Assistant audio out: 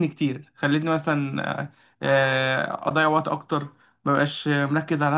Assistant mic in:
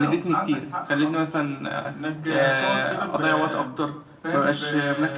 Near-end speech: present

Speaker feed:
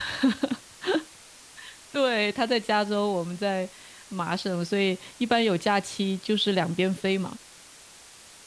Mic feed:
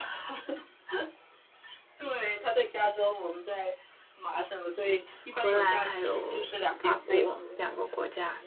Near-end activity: present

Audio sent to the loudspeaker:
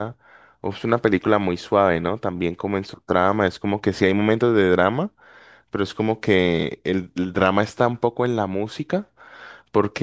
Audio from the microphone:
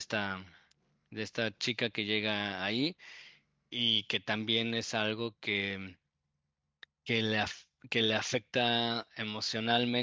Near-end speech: present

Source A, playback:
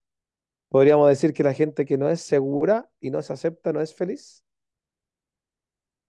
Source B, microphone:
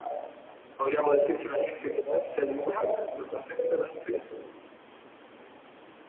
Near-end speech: none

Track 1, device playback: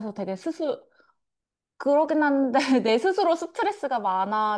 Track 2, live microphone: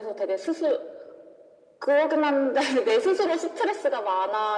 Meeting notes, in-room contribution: none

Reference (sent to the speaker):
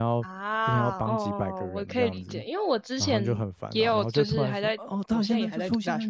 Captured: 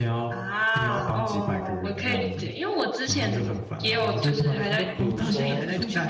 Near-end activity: present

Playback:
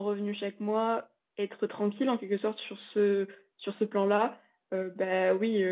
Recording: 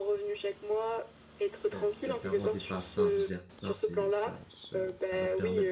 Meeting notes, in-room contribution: present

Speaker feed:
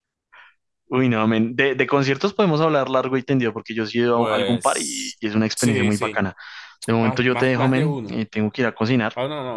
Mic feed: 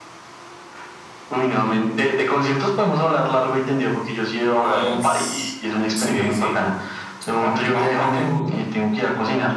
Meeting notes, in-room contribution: none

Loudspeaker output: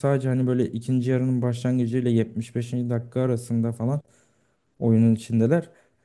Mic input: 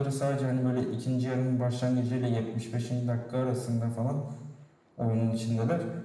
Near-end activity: none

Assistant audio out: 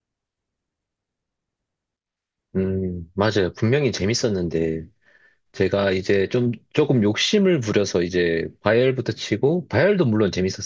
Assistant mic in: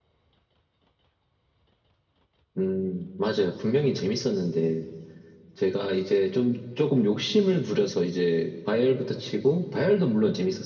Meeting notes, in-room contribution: none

